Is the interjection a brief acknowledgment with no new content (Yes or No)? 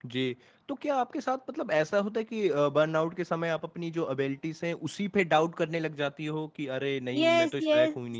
No